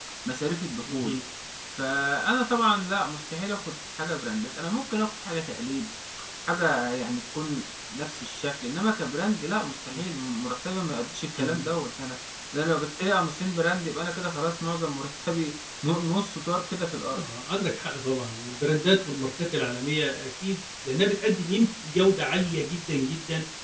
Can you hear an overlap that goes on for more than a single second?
No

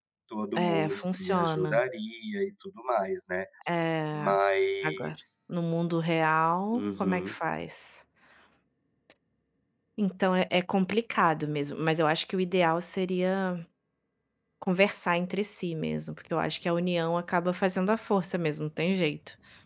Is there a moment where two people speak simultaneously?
Yes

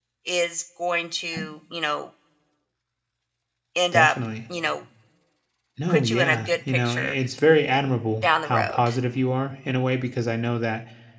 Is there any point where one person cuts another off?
Yes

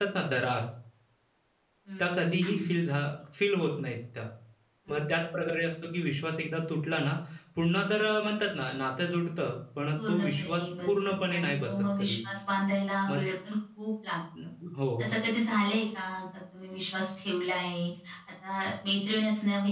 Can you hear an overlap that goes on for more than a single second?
Yes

